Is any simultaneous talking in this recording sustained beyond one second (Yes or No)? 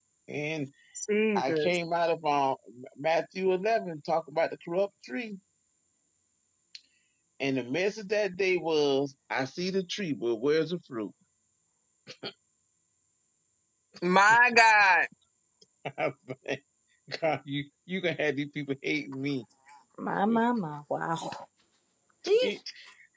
No